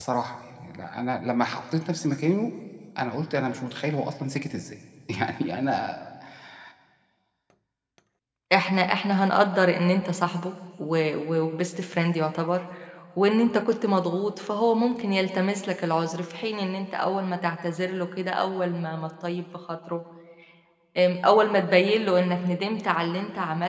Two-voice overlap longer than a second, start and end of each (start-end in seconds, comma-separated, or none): none